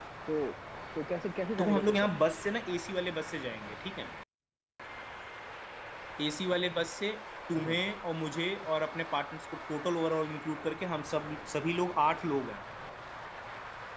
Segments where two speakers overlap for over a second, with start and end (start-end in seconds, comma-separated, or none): none